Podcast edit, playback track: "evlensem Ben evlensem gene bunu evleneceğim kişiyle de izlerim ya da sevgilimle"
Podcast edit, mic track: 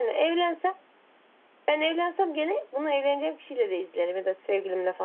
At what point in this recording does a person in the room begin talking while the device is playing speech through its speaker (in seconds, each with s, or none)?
none